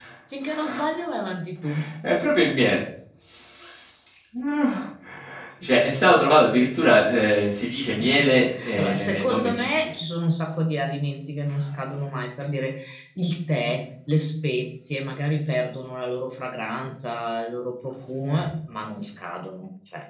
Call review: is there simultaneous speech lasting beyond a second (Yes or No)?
Yes